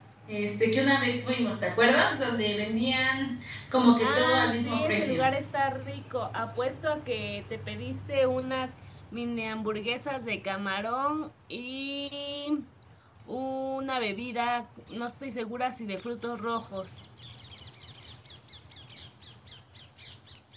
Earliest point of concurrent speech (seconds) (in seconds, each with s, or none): 4.0 s